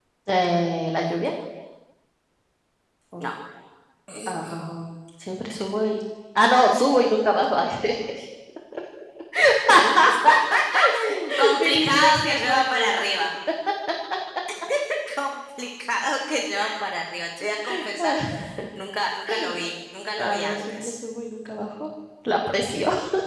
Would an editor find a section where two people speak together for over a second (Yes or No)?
Yes